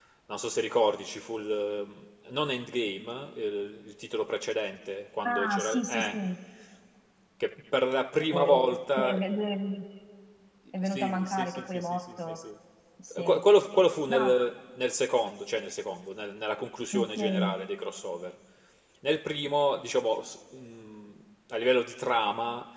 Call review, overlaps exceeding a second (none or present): present